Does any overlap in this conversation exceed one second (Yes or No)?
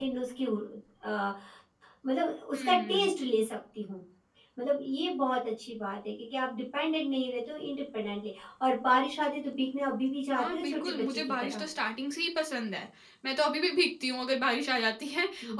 Yes